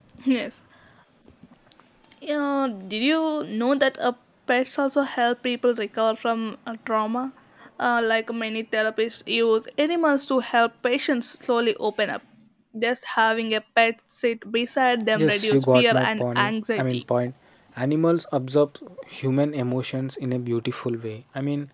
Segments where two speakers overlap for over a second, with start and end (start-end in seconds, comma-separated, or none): 15.2-17.0